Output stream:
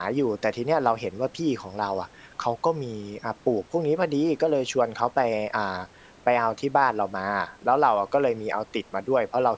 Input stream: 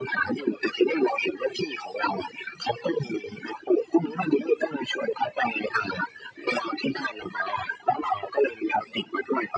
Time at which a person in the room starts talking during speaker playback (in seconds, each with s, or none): none